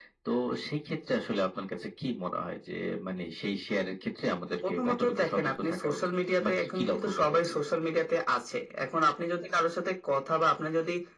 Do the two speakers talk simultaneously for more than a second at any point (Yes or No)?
Yes